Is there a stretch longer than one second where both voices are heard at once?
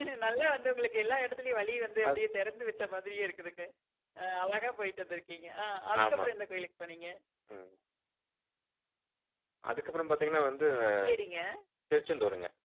No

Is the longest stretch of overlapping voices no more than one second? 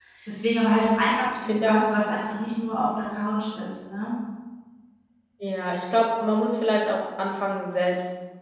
Yes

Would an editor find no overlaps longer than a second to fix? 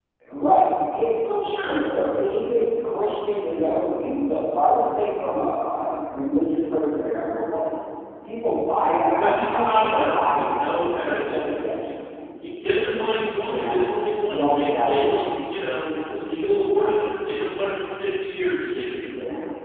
No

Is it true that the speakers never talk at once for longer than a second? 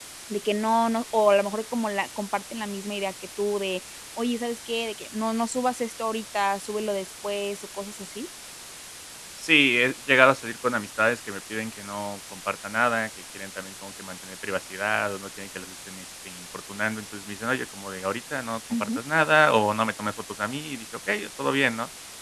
Yes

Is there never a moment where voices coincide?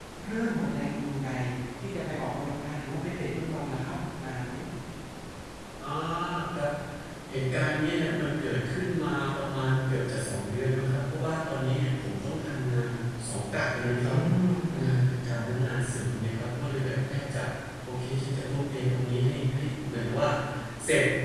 Yes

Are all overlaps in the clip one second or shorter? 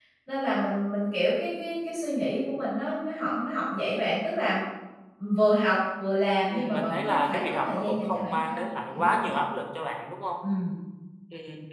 No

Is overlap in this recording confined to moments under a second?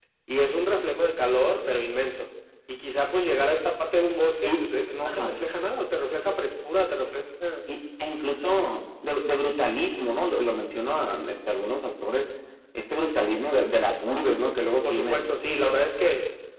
Yes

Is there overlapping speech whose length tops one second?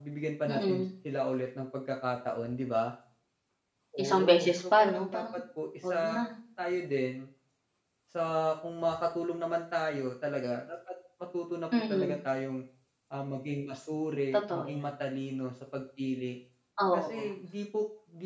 Yes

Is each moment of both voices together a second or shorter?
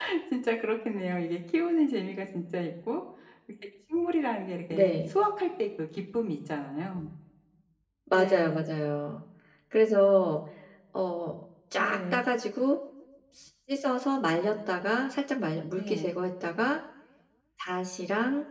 Yes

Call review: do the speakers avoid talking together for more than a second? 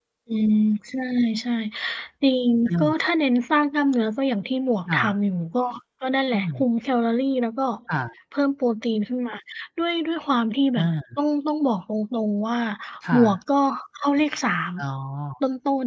Yes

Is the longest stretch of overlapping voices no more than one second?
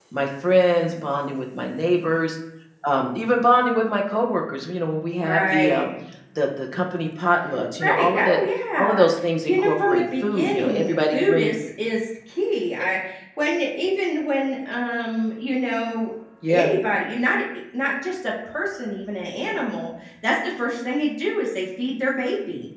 No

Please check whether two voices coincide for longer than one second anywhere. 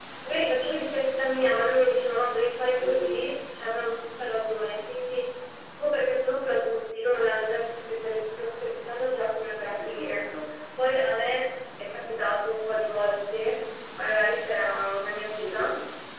No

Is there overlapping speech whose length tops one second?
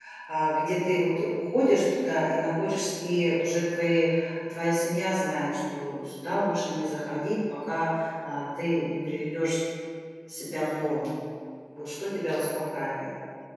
No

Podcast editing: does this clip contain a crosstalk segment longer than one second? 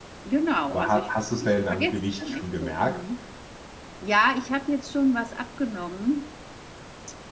Yes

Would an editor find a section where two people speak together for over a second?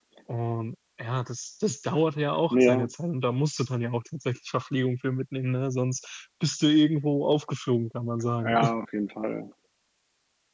No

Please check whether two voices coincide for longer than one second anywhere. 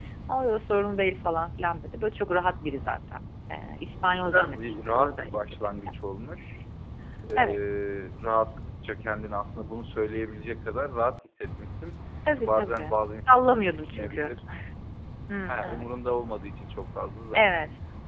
Yes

